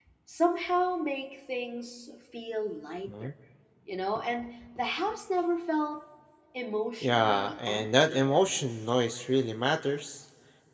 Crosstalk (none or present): present